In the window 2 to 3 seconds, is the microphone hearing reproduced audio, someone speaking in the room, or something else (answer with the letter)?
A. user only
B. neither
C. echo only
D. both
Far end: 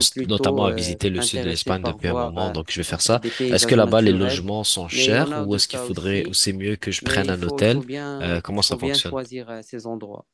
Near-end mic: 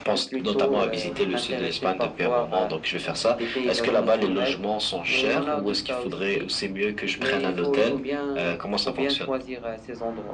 C